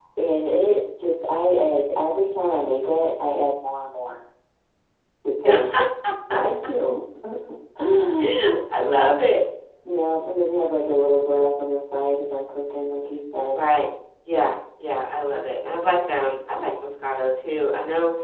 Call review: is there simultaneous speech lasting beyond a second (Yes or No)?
No